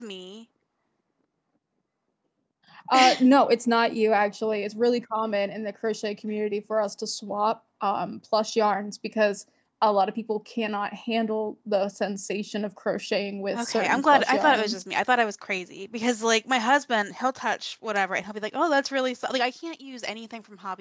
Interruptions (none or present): present